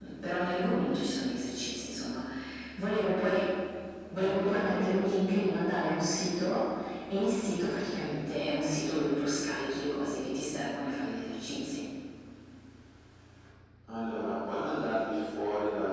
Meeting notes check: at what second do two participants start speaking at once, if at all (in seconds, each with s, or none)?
4.2 s